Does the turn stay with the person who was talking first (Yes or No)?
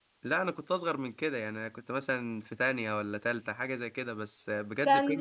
No